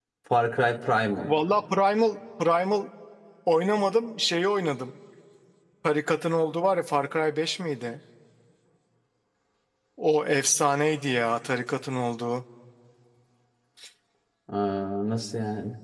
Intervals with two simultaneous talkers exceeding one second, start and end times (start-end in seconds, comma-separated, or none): none